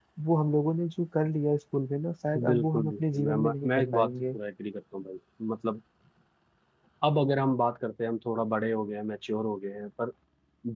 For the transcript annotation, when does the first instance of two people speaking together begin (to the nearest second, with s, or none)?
2 s